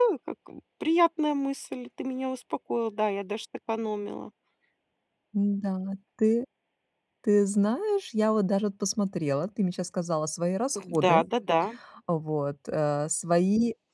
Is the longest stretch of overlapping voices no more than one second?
Yes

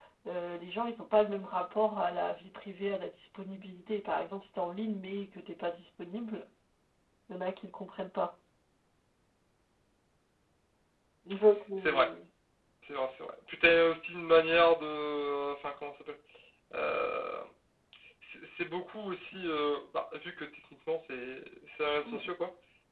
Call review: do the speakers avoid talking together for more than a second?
Yes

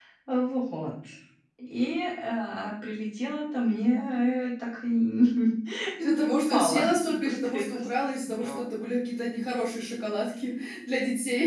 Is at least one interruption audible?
Yes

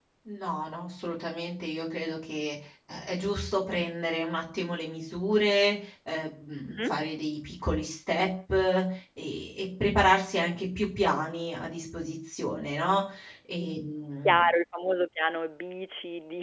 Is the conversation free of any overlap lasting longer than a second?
Yes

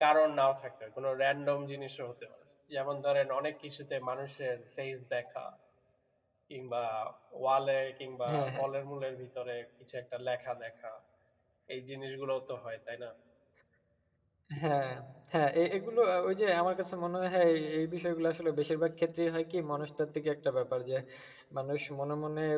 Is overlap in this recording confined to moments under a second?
Yes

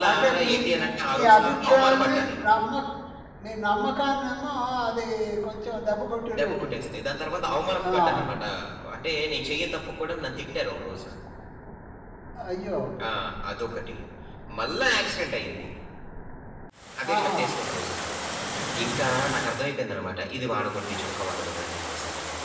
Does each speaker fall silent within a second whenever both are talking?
No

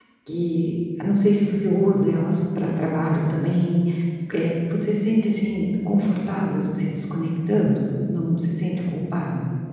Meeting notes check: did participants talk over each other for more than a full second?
No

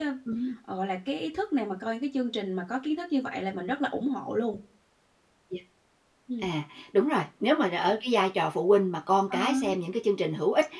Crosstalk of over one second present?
No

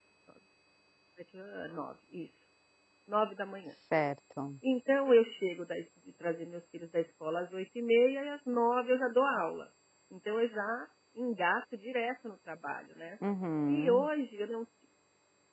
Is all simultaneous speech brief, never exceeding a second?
Yes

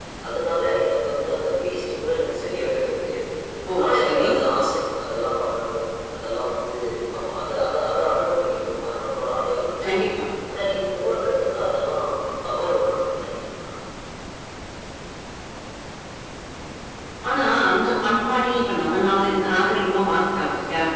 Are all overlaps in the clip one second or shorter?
Yes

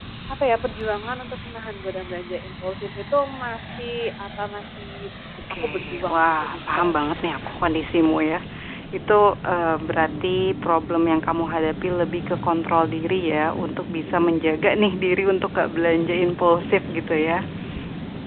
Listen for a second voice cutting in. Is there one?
Yes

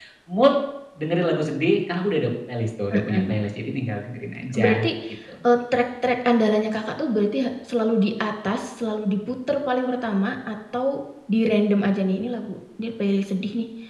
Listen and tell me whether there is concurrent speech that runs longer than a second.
No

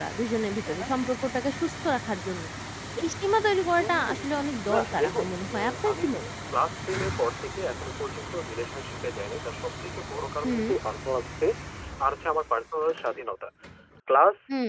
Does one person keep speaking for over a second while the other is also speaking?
Yes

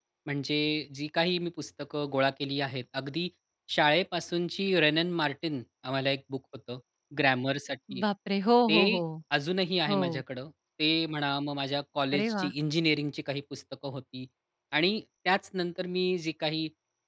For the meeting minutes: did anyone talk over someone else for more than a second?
No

